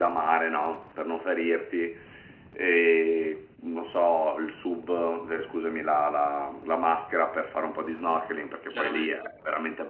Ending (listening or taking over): listening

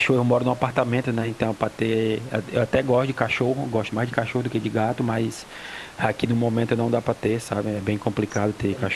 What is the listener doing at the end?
listening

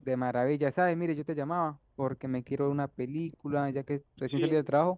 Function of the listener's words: listening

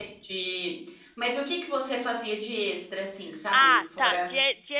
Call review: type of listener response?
taking over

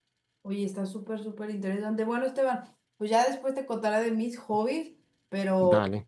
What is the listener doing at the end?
listening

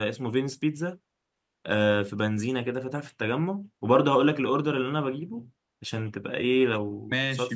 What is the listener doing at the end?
listening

